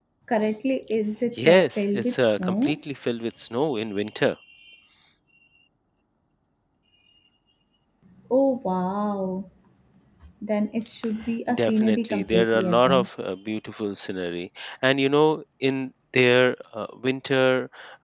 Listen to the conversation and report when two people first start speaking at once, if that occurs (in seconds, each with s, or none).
1.5 s